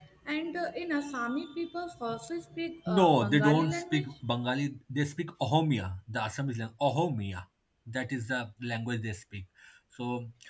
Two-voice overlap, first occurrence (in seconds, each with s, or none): 2.9 s